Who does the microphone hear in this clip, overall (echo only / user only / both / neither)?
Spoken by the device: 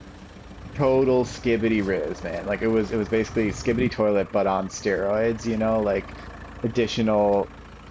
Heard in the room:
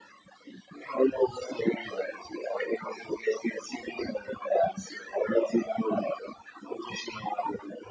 echo only